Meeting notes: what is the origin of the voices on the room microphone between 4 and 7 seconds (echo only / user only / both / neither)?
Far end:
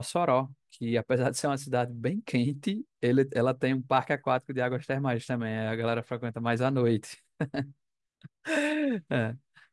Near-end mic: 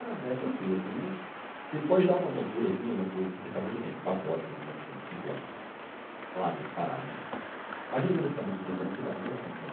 user only